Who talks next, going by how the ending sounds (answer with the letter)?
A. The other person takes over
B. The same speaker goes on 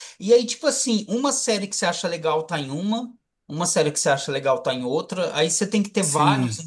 B